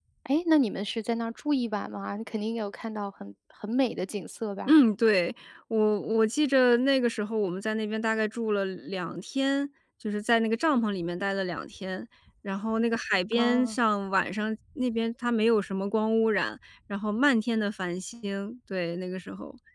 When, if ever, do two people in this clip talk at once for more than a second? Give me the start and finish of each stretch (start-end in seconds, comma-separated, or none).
none